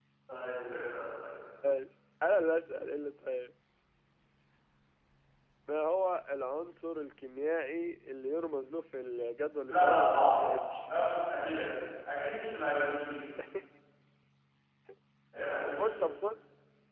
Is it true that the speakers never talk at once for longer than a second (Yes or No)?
No